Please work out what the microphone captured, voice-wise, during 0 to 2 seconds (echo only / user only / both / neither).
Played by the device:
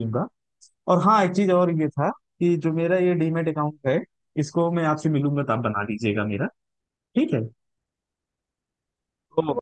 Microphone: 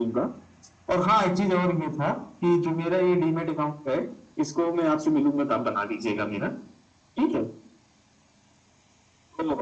echo only